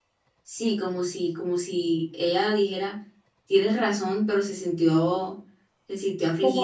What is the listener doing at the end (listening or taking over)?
listening